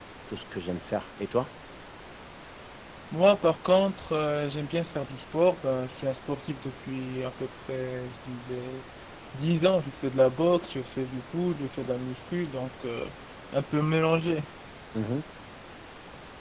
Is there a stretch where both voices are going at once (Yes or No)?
No